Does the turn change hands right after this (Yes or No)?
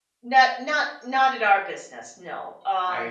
No